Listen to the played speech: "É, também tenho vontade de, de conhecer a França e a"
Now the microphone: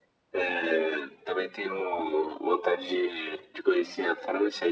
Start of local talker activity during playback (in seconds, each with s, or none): none